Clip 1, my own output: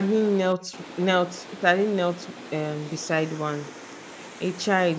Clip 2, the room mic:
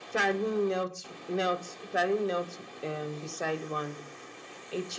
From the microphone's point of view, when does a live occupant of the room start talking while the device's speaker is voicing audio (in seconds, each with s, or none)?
none